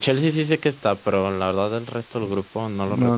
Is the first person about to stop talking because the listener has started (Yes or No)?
Yes